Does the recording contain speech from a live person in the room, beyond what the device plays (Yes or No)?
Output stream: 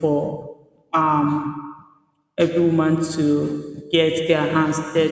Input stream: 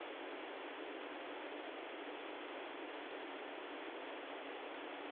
No